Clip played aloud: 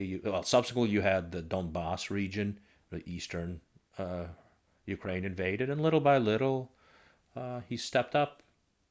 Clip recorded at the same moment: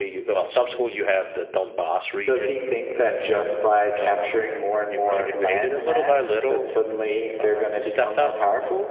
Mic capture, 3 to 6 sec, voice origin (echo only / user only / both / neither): both